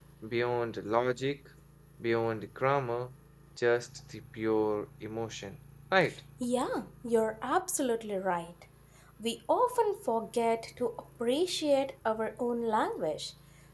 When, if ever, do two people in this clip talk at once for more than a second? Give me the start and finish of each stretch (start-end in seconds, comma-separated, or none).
none